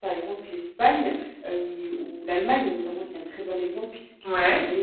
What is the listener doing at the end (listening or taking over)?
listening